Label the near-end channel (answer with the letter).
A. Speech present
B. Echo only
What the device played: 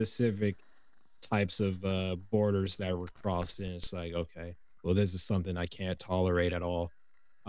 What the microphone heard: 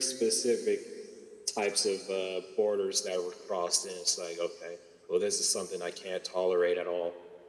B